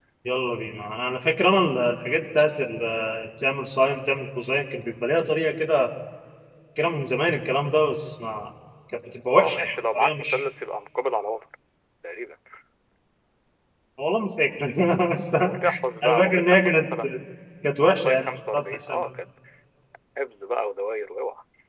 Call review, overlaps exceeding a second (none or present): present